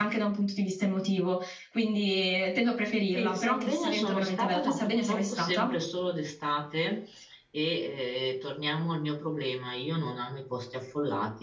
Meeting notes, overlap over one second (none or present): present